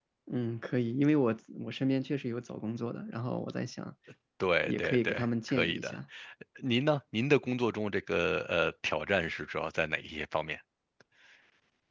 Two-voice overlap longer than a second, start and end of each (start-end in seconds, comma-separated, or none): 4.6-6.0